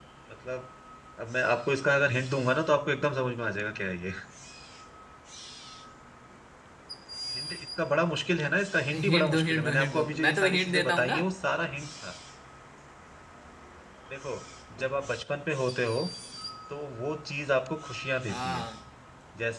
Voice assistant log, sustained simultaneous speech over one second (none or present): present